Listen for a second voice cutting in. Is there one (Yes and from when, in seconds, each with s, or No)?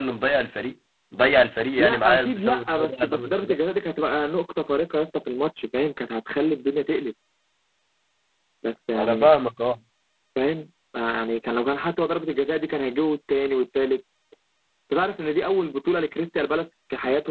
Yes, from 1.8 s